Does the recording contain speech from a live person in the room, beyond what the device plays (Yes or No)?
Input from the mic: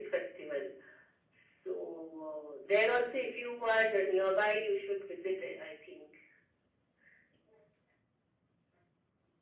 No